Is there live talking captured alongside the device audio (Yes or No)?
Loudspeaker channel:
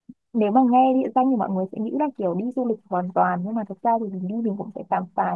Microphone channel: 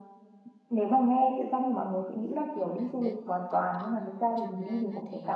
Yes